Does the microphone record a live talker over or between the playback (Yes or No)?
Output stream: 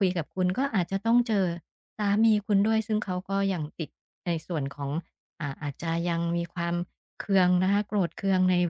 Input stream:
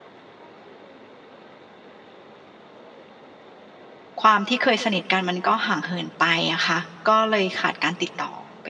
Yes